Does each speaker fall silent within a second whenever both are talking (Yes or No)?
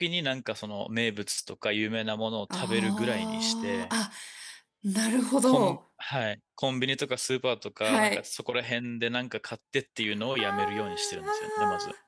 No